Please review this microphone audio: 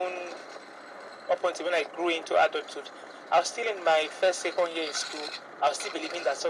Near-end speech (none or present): none